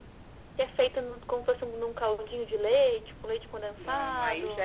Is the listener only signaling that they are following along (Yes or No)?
No